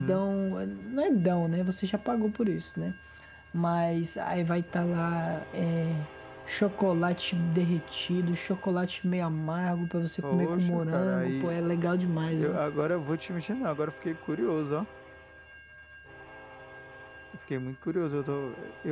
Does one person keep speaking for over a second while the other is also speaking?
Yes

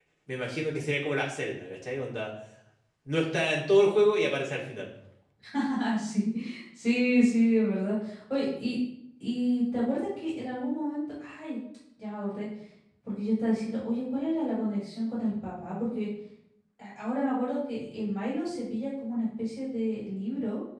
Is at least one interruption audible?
No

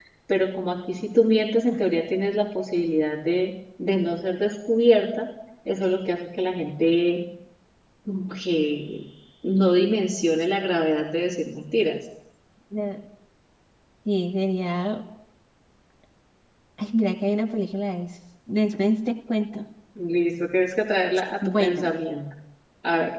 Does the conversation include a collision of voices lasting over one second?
No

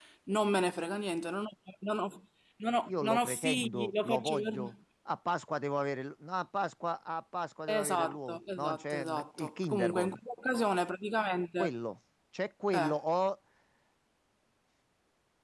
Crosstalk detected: Yes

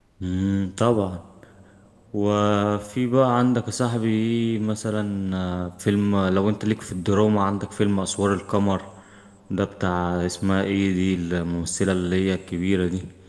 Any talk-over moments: No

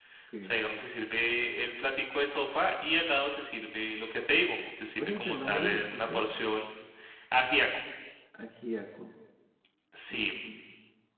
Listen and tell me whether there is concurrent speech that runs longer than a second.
Yes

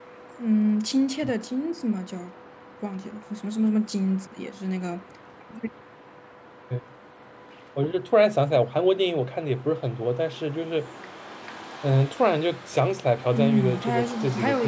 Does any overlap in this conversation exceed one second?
Yes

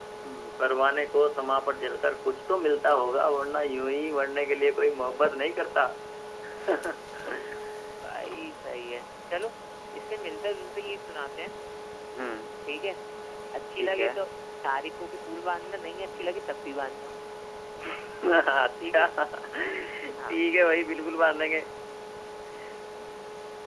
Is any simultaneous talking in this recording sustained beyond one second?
No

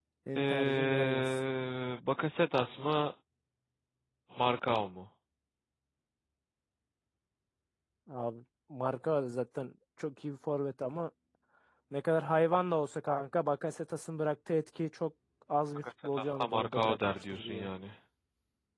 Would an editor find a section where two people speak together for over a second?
Yes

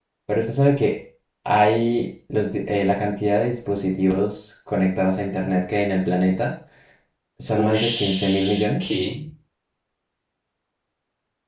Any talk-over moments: Yes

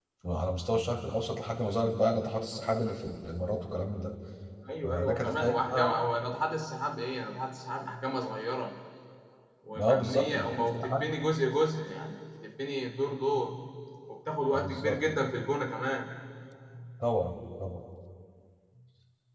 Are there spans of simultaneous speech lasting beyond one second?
Yes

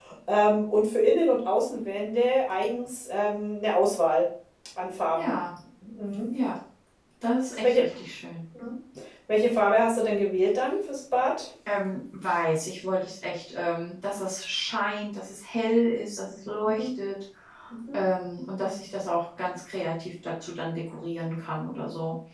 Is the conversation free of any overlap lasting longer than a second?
Yes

